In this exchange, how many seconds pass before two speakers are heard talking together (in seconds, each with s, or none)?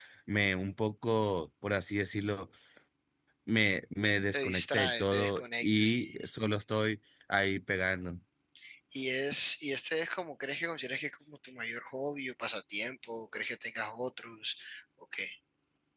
4.3 s